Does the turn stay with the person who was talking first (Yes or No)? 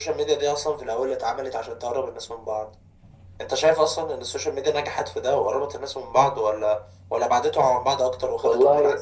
No